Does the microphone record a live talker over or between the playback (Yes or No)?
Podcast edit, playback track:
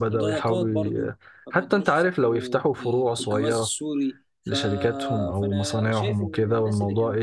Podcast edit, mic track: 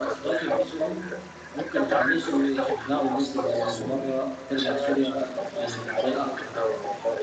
Yes